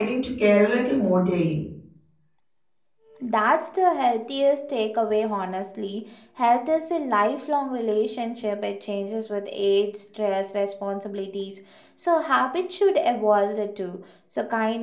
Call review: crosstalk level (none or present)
none